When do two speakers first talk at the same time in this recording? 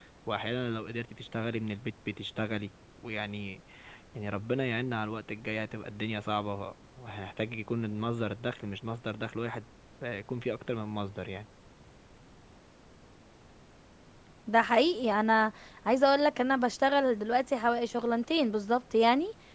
none

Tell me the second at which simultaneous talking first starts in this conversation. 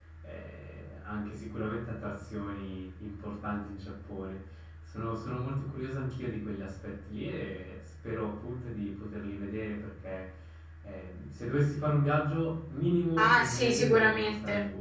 13 s

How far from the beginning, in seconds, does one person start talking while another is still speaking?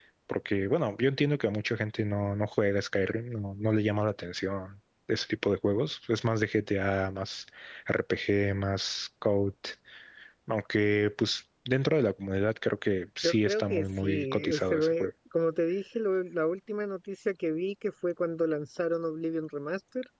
13 s

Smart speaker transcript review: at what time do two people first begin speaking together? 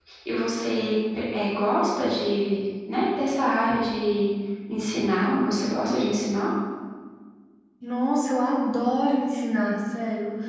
none

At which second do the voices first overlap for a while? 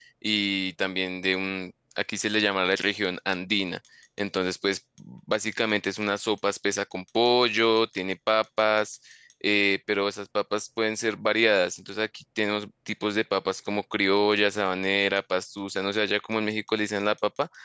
none

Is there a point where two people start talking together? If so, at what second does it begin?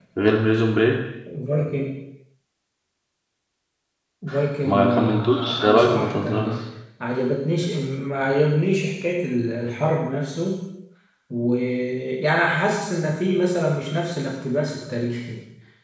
5 s

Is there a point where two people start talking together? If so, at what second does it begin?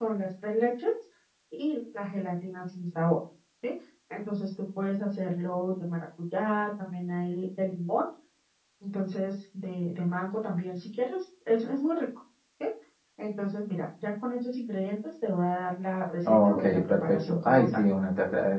16 s

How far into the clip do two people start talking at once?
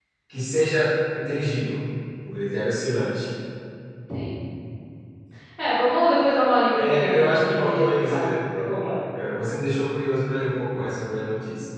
7 s

